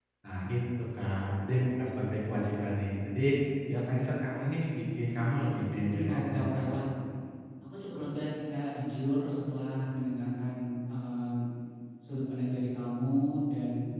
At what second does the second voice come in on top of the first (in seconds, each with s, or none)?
5.1 s